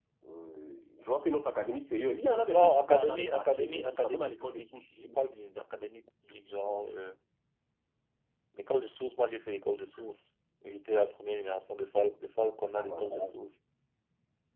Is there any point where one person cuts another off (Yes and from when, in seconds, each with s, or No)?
Yes, from 2.5 s